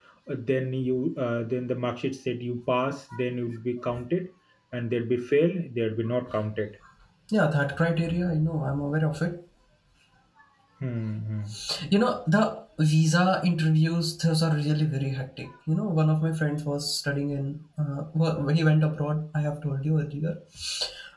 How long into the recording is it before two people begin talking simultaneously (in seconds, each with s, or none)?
none